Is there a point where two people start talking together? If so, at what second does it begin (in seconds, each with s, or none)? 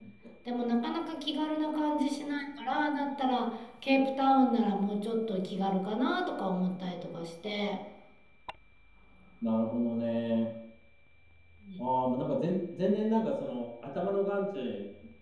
none